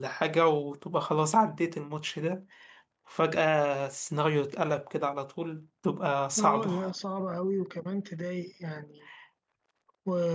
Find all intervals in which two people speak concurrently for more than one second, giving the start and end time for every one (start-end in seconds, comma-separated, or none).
none